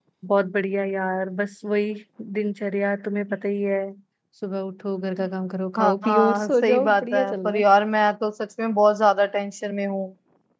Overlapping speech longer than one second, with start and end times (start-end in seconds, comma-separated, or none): 5.8-7.6